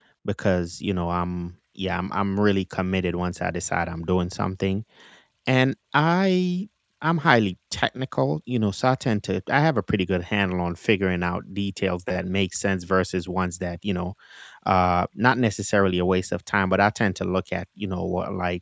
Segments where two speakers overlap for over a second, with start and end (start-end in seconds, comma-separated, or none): none